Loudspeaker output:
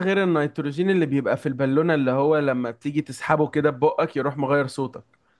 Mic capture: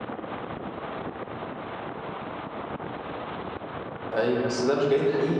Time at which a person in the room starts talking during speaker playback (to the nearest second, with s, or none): 4 s